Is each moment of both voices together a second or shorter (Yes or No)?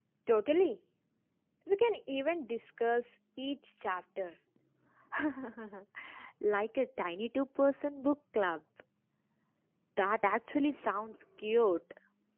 Yes